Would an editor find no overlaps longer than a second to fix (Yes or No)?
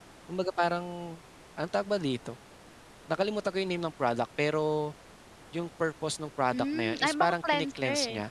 No